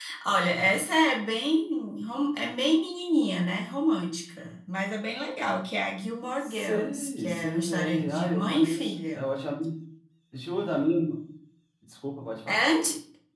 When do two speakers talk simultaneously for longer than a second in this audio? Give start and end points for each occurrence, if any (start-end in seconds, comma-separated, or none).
6.4-9.2